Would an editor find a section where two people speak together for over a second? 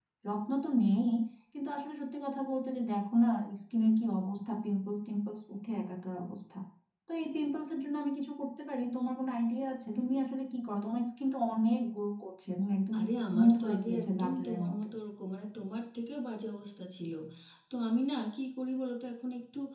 Yes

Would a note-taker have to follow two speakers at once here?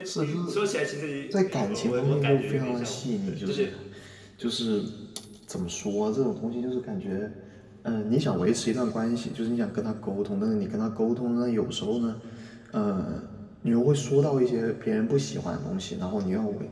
Yes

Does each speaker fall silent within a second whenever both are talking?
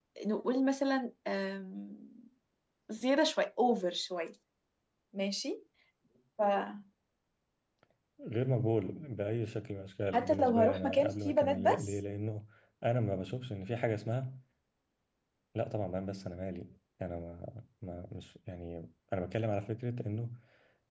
No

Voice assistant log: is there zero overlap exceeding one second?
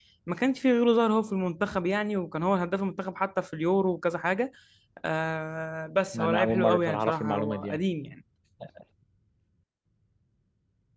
No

